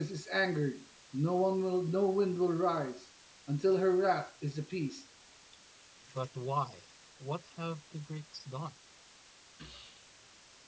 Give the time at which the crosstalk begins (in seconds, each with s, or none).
none